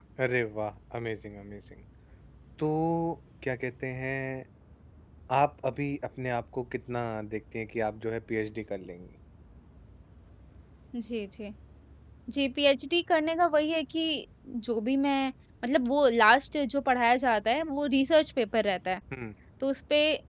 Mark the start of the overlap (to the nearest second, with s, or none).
none